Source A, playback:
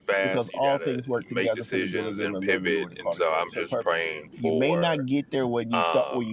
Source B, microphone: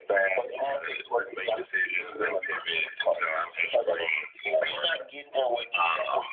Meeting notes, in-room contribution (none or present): none